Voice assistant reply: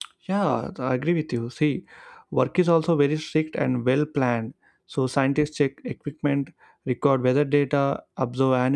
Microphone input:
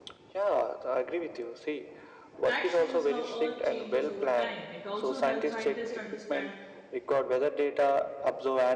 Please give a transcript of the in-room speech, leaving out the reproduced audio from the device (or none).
That shows how Earth changes over time. It also helps scientists understand